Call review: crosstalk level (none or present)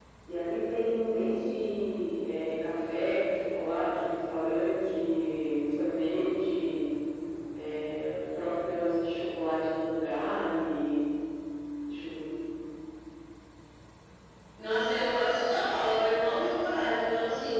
none